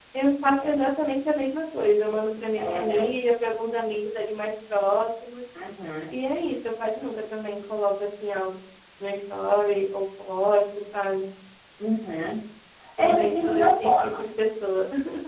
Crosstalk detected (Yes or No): Yes